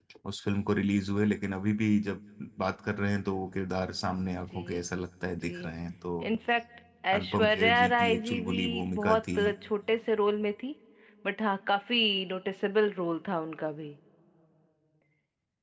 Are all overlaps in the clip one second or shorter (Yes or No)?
No